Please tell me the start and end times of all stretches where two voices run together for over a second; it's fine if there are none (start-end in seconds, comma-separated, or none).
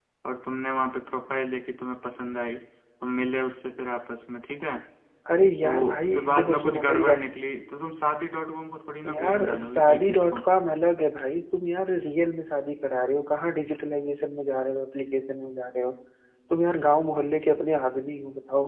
5.6-7.5, 9.1-10.4